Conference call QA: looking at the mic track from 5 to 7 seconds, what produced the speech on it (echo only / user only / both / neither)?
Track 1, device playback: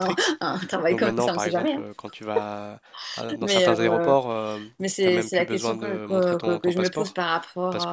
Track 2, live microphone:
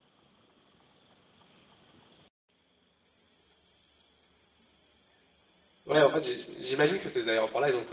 user only